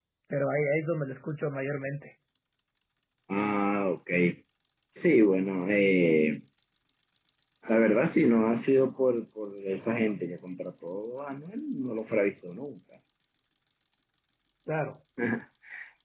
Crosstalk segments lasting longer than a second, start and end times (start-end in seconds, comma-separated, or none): none